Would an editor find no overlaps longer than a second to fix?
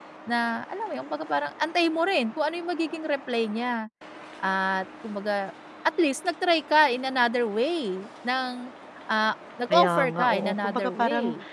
No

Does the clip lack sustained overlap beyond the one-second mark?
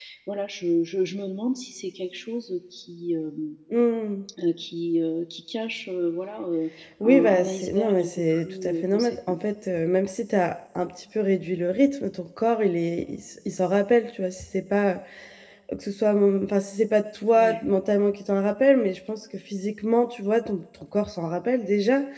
No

